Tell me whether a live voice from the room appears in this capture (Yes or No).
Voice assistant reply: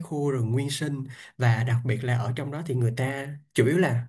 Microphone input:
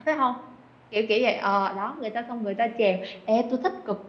Yes